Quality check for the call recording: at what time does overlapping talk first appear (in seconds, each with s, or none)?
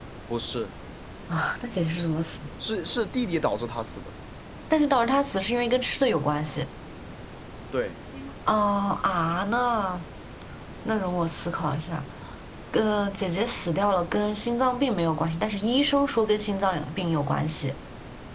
none